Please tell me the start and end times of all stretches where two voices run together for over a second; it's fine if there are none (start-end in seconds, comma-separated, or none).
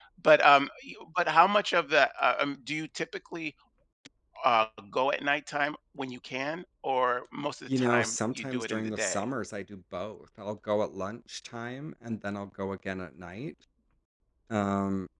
7.8-9.3